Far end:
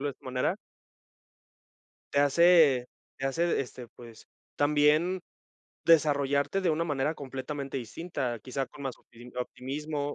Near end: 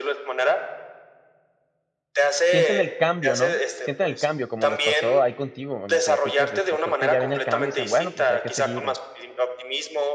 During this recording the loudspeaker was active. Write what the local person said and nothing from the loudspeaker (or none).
Sienten el cambio, ¿no? Sienten el cambio, como les pasó ahí contigo, me platicas, este, creo que ya ven el cambio, y dicen: “Bueno, pues, hay que seguir,